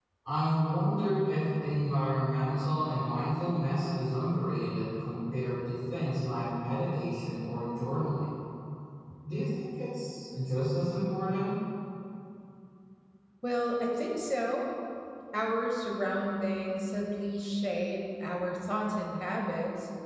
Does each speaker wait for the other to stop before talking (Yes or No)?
Yes